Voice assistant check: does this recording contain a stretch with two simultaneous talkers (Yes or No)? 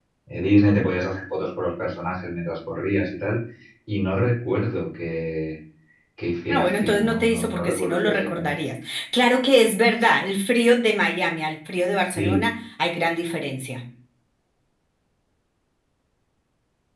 Yes